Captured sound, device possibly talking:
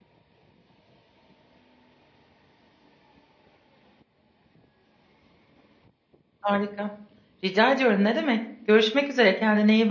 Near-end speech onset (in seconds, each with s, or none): 6.4 s